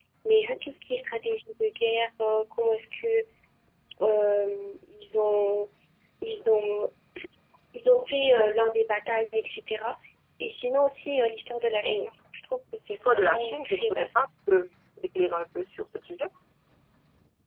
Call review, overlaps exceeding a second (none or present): present